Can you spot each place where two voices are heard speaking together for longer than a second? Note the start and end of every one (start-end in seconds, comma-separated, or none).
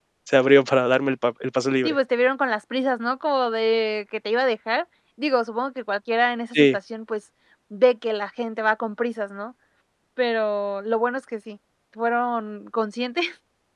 none